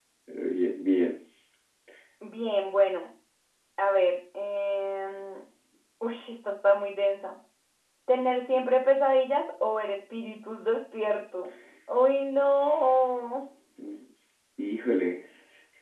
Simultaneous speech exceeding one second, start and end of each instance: none

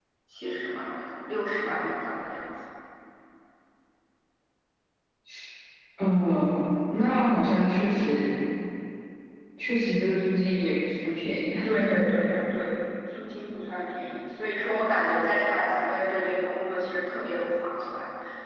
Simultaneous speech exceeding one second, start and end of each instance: none

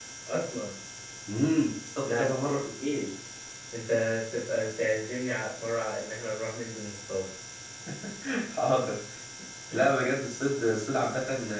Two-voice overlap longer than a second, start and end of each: none

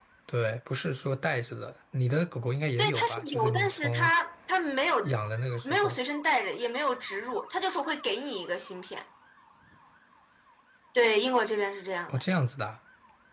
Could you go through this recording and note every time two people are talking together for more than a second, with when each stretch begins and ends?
2.8-4.1

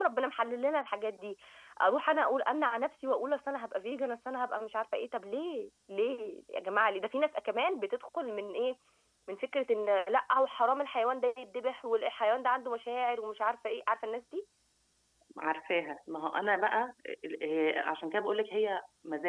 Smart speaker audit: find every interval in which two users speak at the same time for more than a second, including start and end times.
none

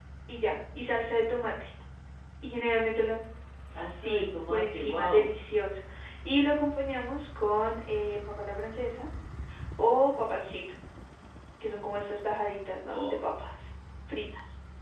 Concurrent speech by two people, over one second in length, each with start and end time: 4.0-5.3

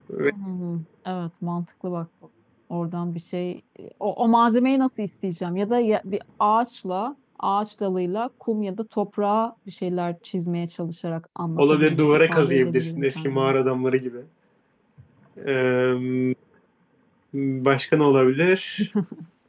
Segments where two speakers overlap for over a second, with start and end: 11.6-13.5

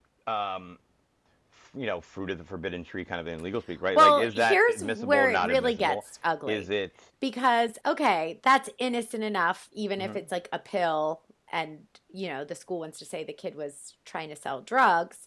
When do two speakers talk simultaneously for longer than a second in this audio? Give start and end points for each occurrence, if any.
4.0-6.0

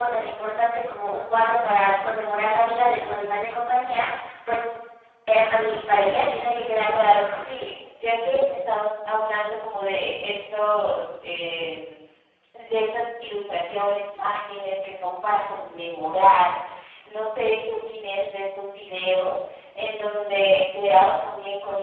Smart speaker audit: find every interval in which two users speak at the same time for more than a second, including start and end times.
5.9-7.7

